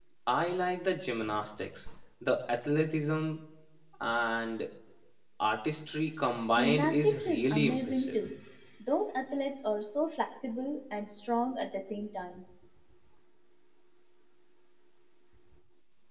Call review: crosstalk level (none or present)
present